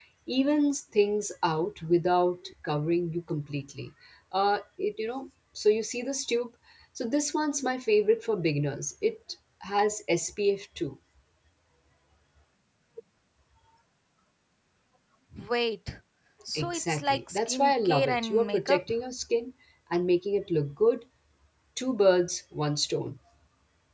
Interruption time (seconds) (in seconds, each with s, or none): 16.6 s